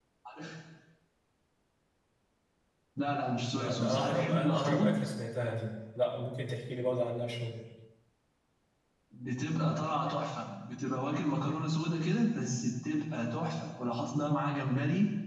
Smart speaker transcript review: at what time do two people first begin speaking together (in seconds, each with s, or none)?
3.5 s